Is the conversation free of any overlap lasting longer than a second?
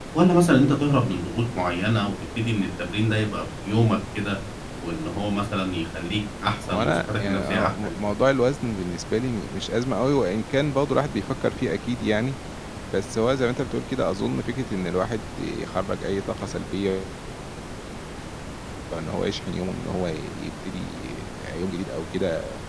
No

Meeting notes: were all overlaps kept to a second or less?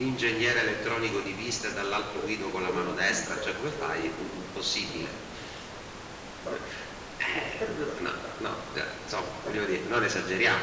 No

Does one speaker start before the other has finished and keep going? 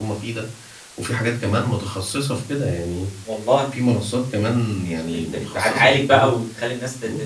Yes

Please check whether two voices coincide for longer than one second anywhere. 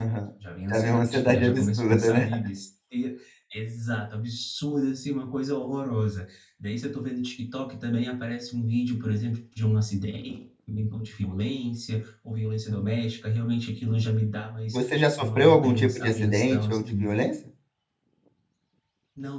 Yes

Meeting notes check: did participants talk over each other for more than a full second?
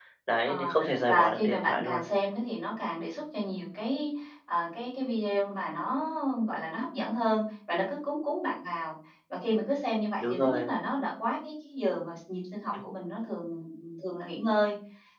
Yes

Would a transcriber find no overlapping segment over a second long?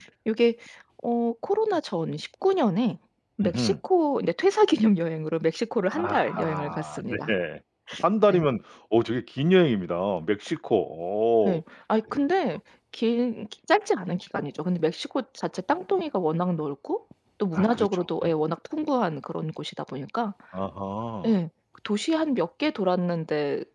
No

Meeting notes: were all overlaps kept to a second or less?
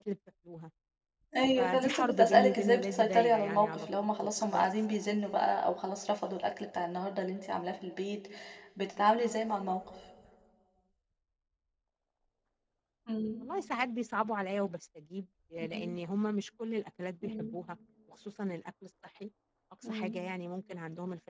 No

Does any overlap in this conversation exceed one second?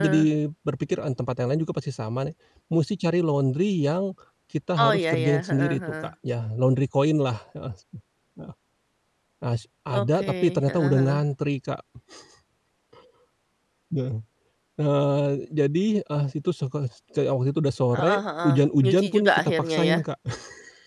Yes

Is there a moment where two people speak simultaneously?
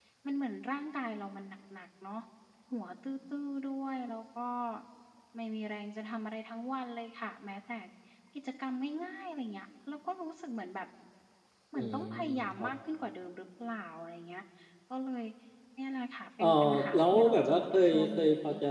Yes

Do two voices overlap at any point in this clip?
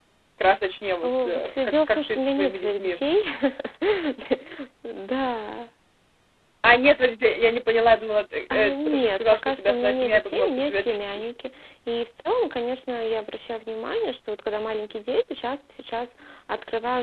Yes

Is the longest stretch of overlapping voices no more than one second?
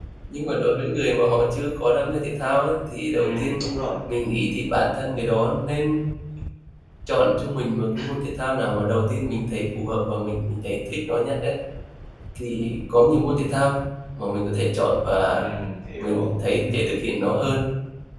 Yes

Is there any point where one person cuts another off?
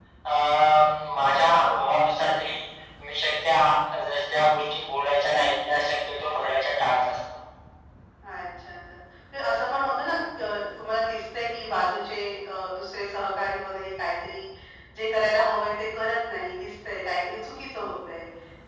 No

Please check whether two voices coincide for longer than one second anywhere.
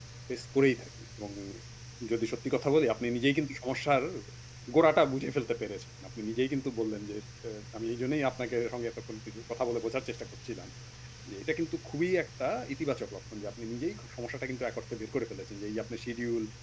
No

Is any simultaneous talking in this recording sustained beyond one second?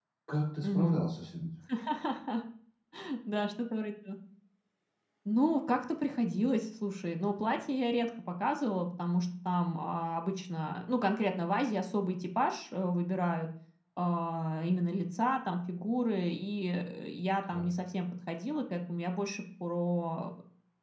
No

